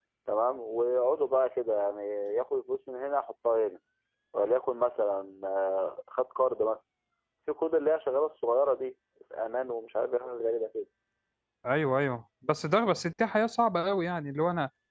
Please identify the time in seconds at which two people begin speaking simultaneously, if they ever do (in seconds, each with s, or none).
none